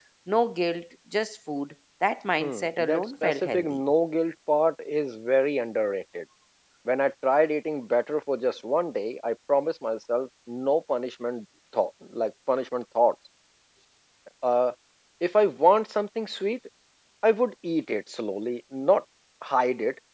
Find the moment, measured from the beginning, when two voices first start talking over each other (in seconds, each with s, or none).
2.4 s